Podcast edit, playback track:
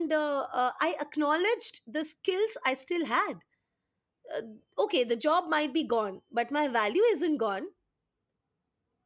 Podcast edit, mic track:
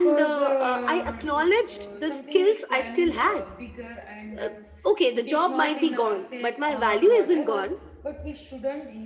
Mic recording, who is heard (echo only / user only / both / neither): both